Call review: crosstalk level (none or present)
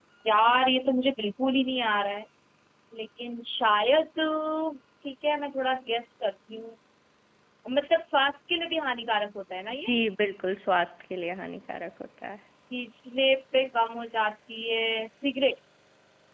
none